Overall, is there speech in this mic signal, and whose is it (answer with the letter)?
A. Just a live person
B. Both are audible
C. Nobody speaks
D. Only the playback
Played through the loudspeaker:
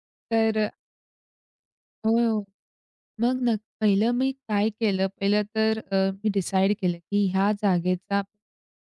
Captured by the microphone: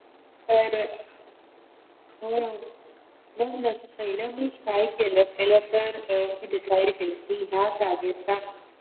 D